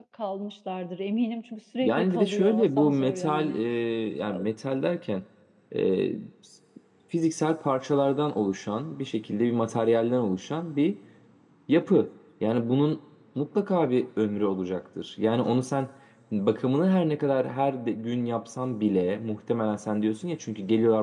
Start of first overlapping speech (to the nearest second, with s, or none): 2 s